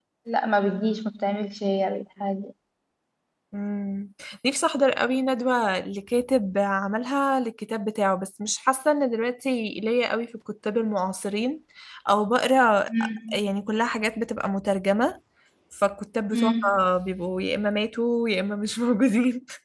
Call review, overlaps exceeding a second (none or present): none